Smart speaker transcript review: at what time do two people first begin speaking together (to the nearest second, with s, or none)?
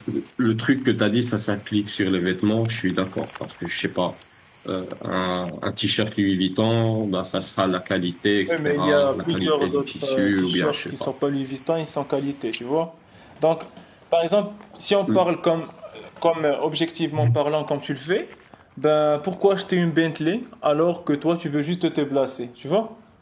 8 s